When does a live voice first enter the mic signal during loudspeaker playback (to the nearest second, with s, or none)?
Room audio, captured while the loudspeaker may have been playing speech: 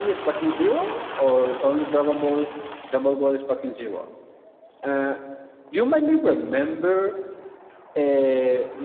none